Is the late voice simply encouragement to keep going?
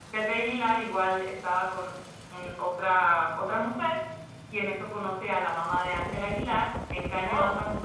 Yes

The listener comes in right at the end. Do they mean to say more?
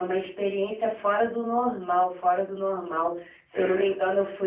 No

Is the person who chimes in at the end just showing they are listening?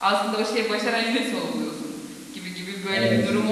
Yes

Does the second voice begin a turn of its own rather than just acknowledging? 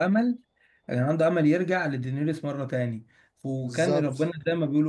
No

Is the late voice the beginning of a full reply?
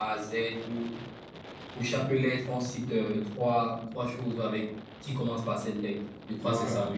Yes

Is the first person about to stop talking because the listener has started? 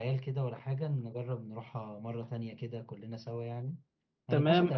Yes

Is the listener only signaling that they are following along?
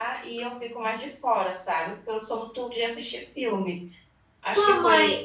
No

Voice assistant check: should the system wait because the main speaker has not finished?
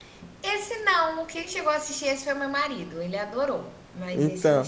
No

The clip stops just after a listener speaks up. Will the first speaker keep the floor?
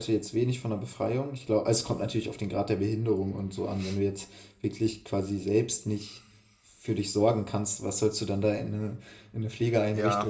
No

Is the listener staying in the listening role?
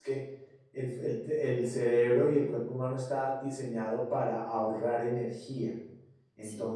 Yes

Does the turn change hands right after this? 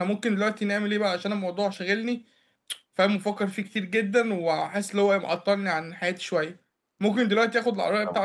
No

